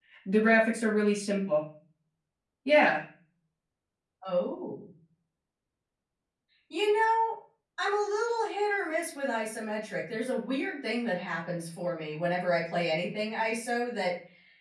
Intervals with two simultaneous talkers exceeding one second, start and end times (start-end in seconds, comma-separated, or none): none